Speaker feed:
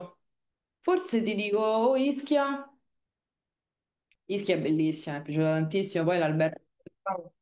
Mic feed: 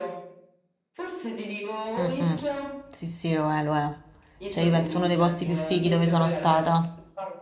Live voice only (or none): Mm, mm. Sì, sì, lo è, lo è. Cioè, io penso uno dei posti più fighi dove sono stata.